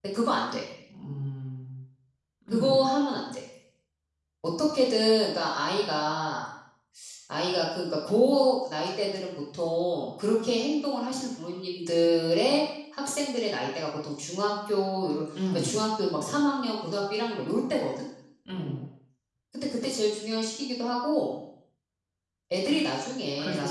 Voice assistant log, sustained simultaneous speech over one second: none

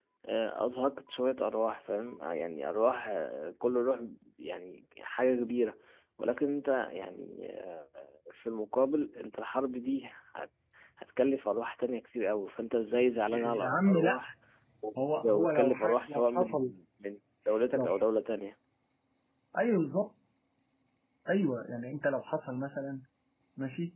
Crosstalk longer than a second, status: present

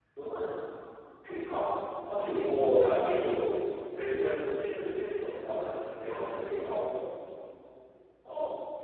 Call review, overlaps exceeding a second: present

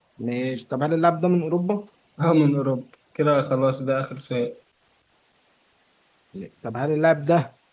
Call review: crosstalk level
none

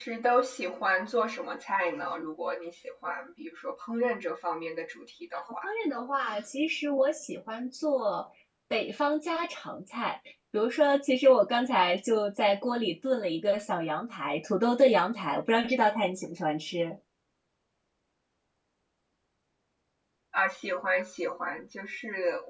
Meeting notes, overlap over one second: none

